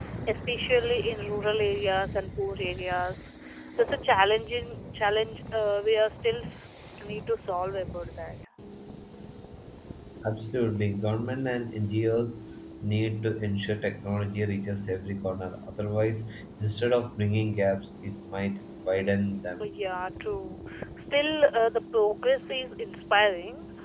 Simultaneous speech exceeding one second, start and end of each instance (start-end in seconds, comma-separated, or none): none